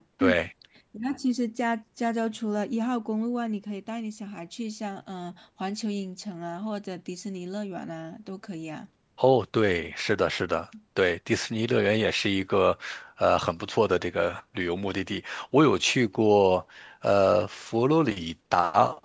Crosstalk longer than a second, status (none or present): none